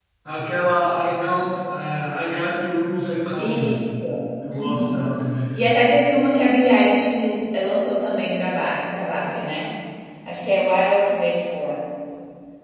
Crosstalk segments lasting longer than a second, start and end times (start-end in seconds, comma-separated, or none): none